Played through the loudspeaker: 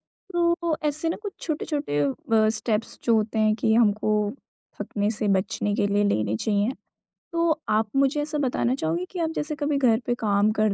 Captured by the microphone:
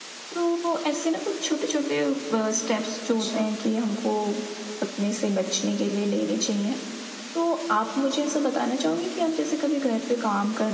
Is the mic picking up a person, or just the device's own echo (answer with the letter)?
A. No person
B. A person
B